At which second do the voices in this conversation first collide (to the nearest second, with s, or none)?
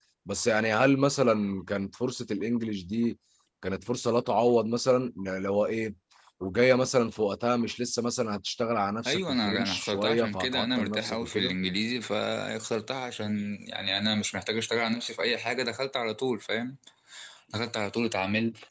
9 s